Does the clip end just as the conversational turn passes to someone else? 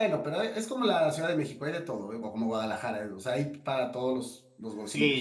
Yes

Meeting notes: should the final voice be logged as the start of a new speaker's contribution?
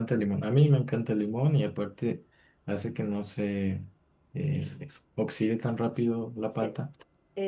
Yes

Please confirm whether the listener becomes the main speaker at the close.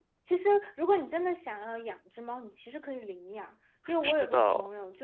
No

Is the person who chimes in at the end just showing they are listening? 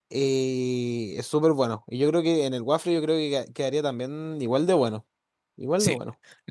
No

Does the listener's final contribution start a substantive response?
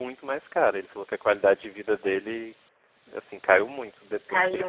No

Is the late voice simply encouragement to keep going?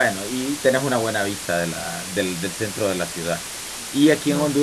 Yes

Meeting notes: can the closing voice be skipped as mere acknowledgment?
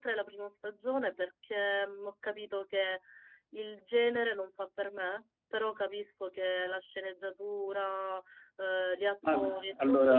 No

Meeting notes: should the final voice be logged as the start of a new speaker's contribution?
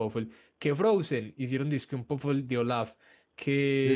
Yes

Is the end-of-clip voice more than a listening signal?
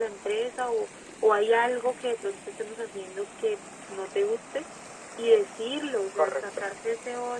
No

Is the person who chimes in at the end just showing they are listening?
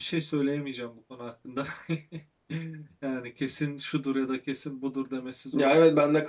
No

